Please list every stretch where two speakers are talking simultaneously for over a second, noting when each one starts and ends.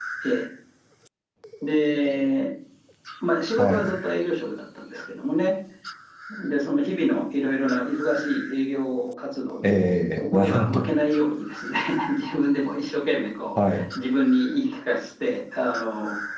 9.6-10.8

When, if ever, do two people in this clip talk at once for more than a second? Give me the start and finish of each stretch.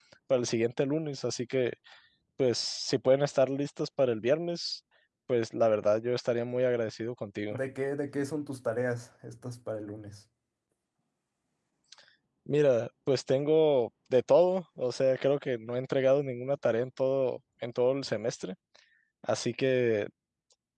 none

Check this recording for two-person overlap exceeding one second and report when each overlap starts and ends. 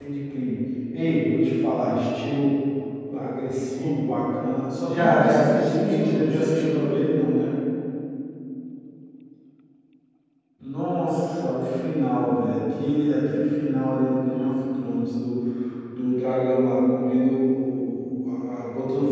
4.8-6.9

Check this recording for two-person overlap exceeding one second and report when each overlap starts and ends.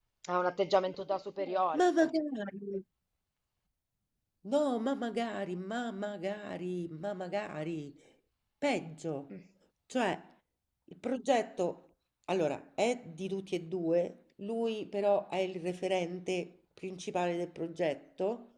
none

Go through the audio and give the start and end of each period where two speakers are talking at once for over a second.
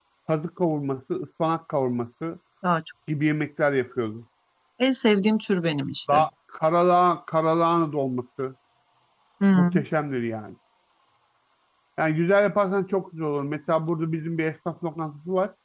none

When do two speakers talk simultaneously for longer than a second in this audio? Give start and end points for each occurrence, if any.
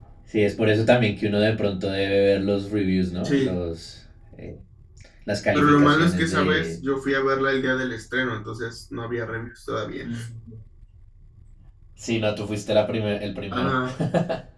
5.5-6.8

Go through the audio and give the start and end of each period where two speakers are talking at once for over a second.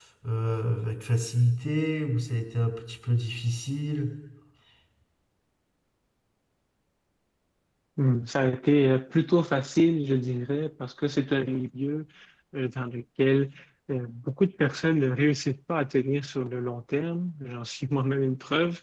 none

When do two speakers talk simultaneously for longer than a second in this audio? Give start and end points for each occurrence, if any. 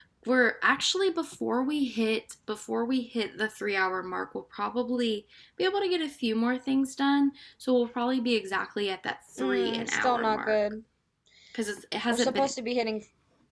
9.4-10.6

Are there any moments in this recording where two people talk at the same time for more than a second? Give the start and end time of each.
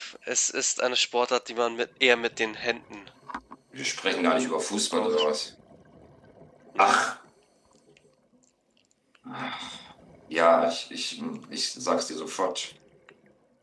none

